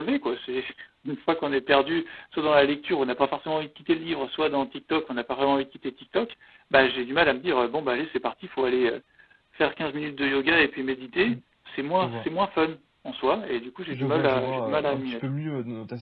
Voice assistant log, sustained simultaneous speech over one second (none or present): present